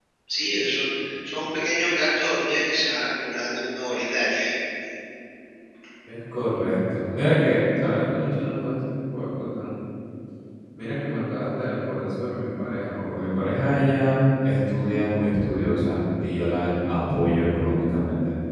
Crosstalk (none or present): none